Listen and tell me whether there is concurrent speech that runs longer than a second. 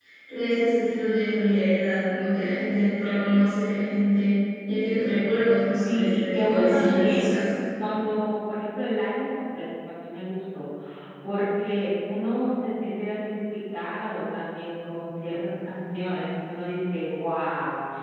Yes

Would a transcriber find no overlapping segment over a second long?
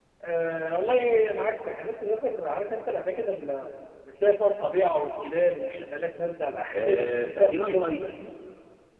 No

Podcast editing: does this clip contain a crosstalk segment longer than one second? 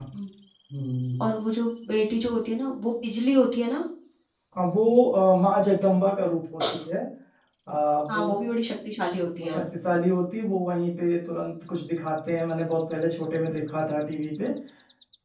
No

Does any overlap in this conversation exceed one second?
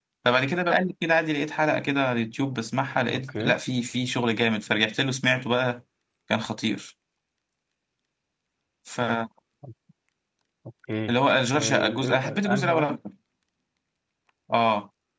Yes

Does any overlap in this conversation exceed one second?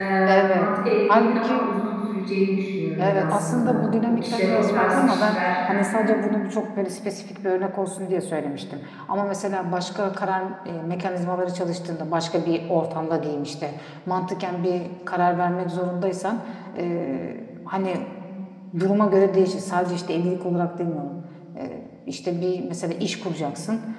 Yes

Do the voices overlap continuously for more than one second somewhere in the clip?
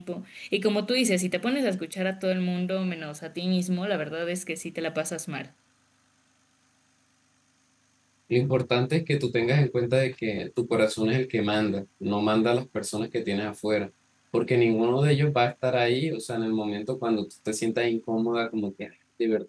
No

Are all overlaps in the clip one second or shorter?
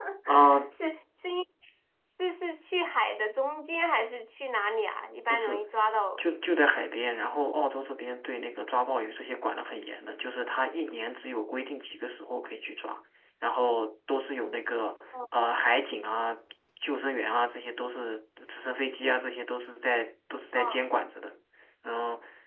Yes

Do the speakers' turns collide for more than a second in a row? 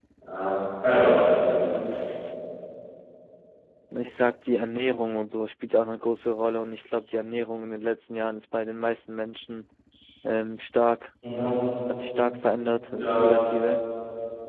No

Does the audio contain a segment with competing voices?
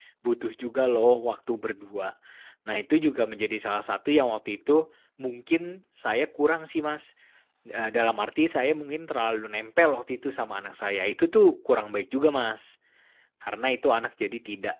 No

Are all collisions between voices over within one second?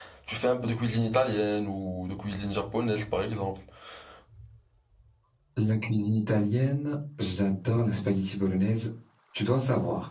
Yes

